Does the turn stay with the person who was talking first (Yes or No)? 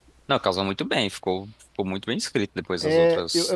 No